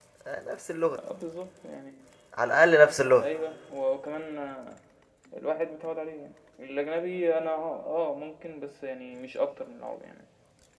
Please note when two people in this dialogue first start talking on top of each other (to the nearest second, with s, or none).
none